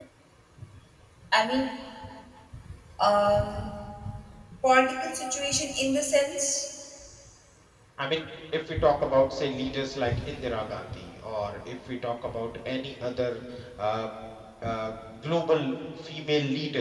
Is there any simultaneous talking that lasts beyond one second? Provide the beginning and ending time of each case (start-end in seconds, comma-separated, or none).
none